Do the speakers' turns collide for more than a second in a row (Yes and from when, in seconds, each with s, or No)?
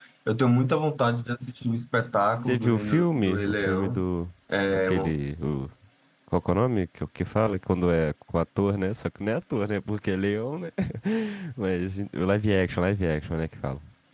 Yes, from 2.2 s